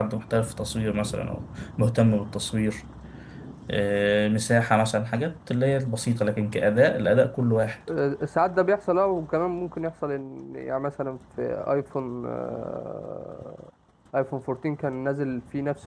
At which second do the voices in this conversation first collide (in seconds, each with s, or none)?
none